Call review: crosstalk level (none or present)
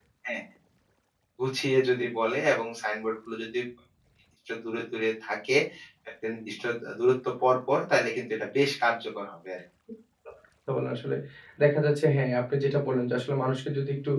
none